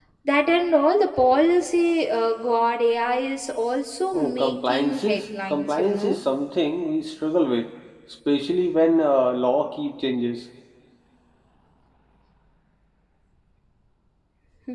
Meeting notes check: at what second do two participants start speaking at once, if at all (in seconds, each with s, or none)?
4.1 s